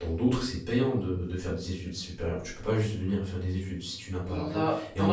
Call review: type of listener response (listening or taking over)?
taking over